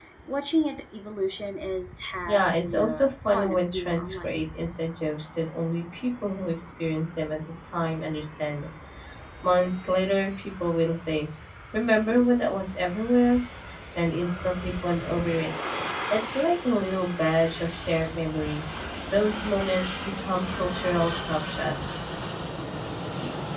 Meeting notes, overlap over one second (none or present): present